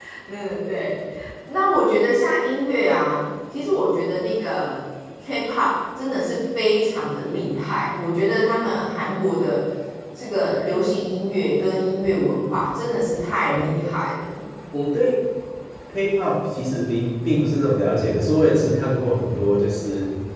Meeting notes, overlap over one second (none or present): none